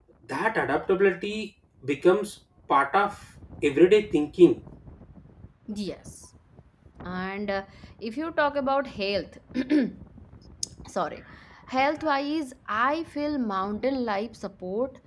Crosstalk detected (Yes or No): No